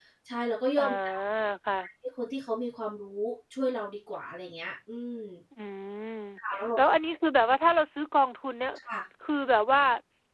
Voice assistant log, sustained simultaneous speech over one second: none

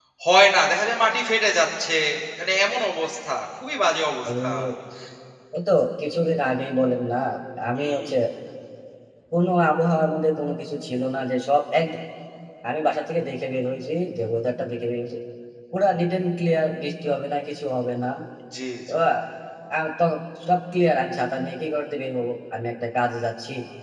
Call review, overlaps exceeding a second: none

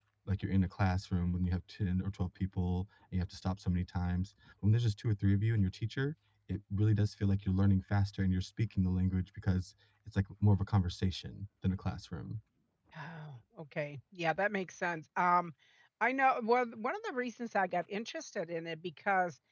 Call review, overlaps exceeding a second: none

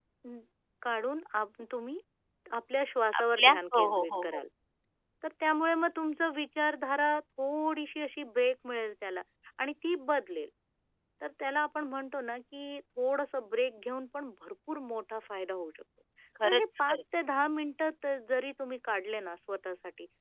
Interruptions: present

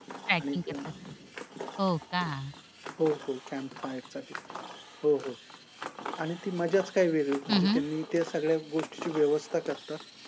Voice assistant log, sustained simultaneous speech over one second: none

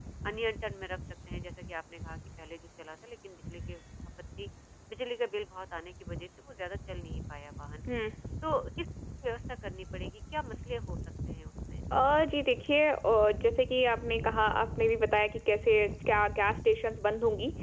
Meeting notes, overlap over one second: none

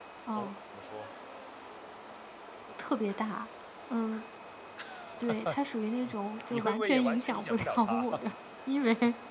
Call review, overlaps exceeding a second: present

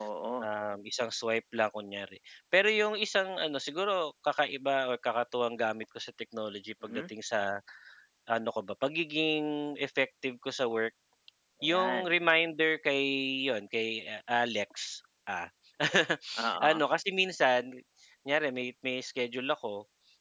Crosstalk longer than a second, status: none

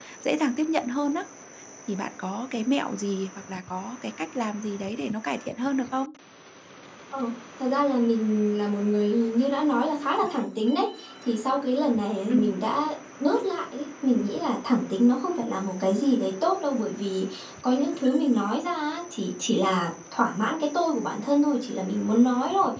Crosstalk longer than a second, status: none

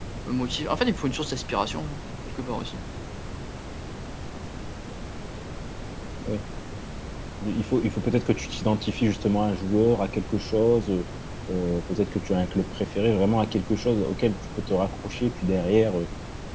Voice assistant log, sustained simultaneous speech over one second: none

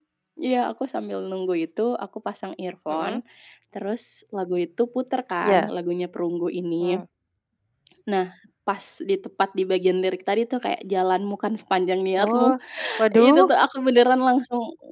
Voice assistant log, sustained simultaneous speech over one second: none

